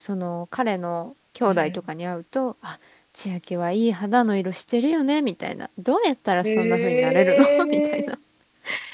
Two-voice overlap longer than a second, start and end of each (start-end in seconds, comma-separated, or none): 6.4-8.2